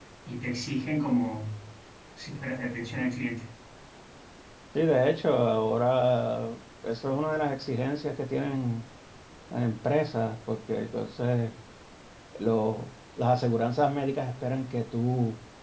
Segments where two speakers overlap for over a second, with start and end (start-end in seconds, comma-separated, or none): none